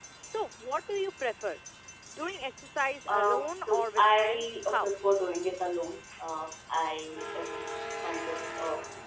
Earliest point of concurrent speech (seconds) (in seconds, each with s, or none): 3.1 s